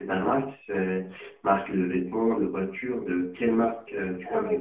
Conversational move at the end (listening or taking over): taking over